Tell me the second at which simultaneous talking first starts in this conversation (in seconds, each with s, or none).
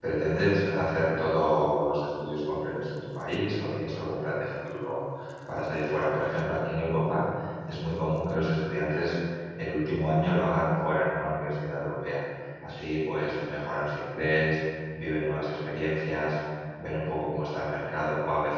none